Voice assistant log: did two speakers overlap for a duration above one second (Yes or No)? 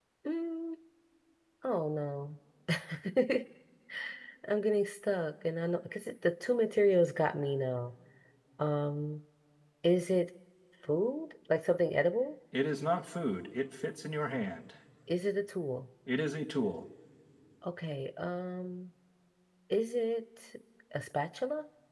No